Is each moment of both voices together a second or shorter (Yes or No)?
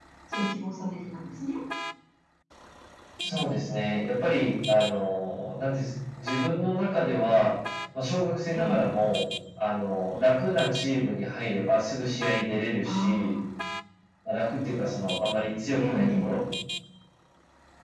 Yes